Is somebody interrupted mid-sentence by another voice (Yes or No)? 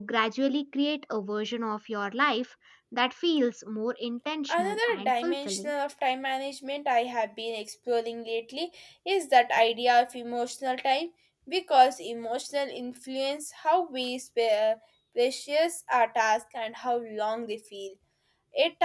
Yes